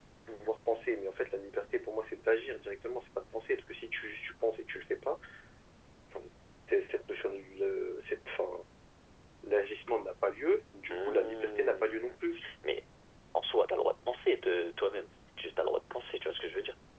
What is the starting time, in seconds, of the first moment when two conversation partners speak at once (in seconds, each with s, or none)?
10.9 s